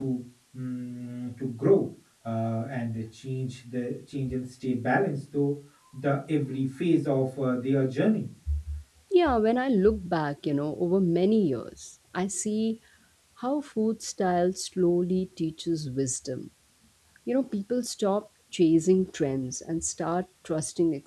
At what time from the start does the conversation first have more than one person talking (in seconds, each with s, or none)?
none